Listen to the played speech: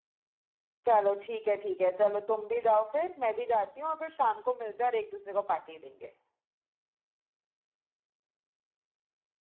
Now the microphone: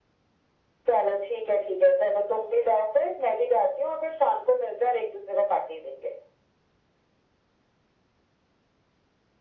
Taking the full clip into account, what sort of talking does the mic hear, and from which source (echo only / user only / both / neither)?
echo only